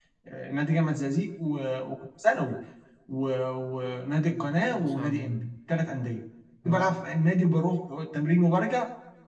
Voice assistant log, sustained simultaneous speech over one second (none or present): present